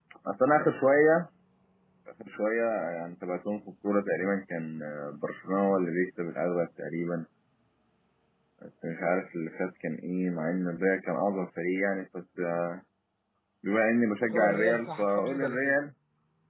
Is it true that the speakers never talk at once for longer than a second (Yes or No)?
No